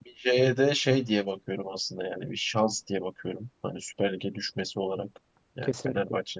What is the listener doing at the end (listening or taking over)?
listening